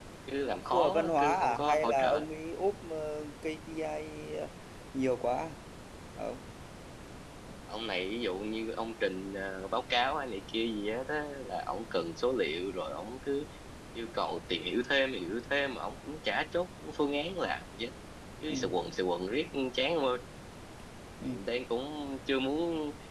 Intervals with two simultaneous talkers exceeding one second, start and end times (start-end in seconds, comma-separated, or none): 0.5-2.2